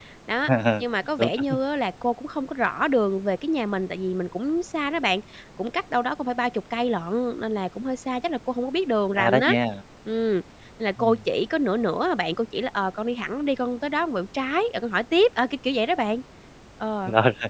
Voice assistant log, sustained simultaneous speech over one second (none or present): none